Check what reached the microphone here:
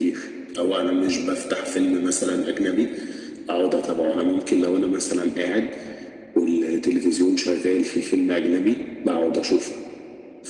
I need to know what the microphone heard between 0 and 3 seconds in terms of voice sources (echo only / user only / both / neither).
echo only